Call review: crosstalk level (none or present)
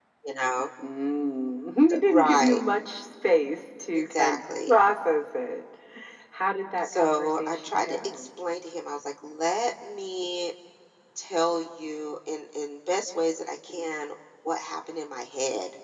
present